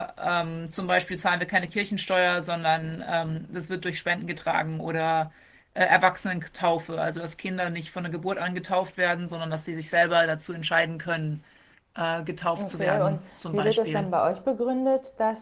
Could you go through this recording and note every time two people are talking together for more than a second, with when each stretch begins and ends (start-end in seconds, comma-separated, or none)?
12.6-14.1